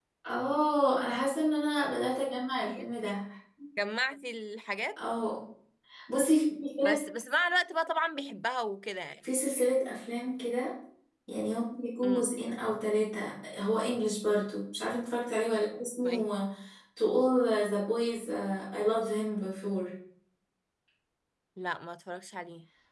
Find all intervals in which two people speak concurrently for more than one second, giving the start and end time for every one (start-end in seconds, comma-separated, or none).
none